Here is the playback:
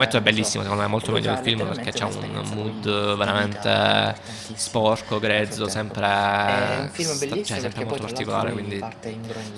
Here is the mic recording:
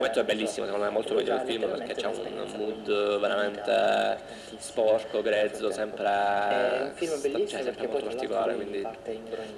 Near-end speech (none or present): none